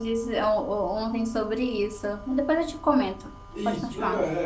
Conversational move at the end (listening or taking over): taking over